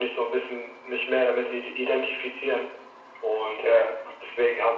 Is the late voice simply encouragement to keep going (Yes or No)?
Yes